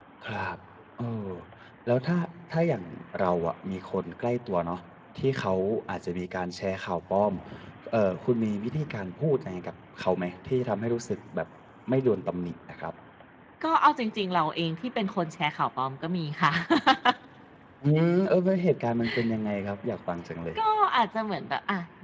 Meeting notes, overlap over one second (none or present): none